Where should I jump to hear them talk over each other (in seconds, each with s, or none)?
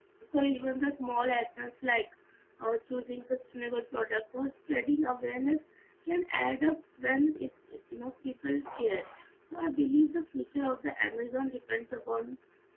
none